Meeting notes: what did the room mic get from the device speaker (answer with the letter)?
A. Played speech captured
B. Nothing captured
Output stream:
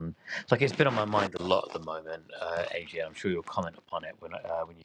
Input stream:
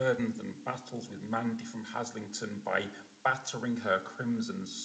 B